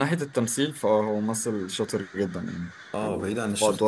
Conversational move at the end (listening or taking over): taking over